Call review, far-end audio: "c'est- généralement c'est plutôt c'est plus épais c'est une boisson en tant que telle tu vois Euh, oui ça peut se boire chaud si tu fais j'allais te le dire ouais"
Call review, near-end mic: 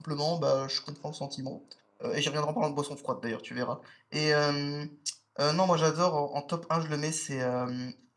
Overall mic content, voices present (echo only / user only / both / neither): user only